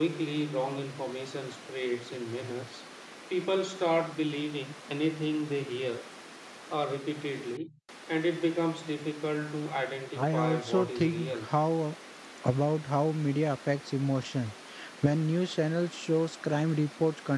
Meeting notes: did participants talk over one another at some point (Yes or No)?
Yes